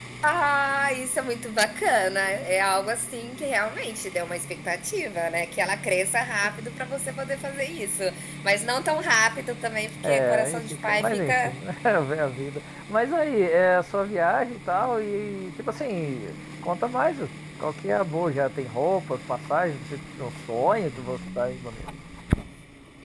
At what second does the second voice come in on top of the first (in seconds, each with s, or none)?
10.0 s